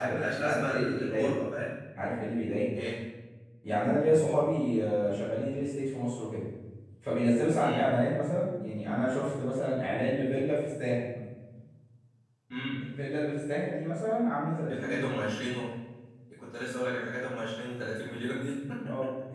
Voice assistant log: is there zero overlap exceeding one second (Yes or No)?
No